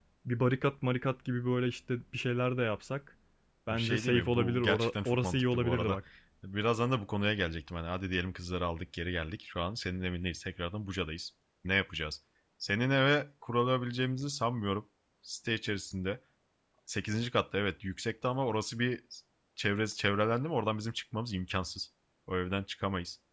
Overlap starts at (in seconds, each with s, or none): 3.7 s